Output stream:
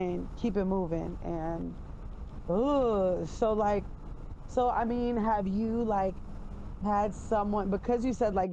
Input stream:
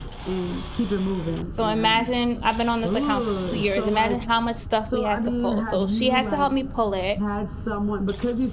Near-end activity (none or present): present